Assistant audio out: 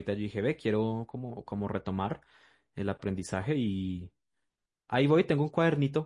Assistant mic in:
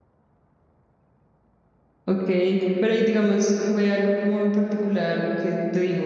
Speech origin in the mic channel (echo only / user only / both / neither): user only